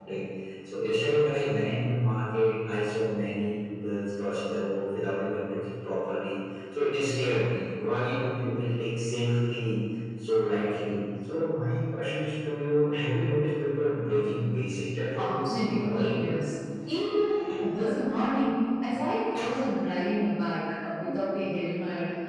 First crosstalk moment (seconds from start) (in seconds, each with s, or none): 15.2 s